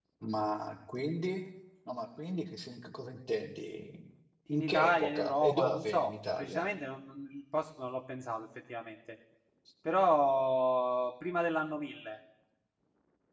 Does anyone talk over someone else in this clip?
Yes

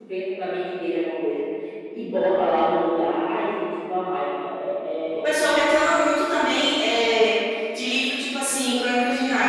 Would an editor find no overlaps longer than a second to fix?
Yes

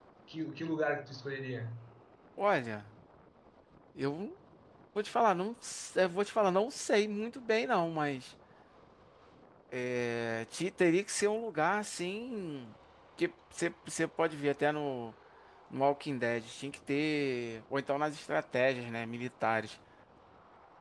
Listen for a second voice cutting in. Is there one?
No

